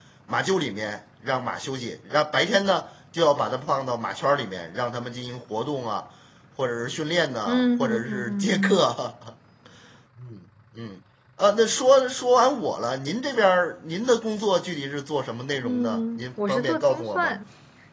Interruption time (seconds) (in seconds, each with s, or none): 7.5 s